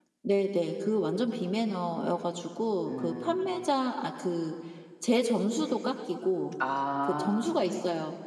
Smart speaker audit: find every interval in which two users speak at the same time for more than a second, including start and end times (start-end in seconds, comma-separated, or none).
none